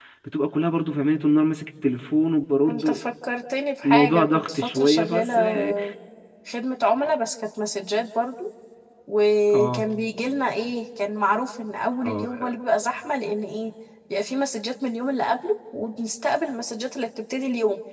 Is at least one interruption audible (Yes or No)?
Yes